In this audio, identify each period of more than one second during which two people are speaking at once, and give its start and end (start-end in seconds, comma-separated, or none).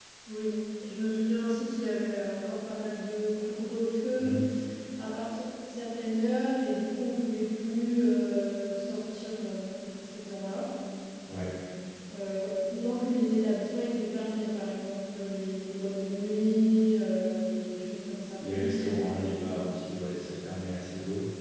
none